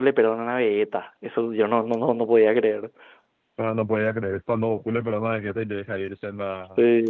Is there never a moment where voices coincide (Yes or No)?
Yes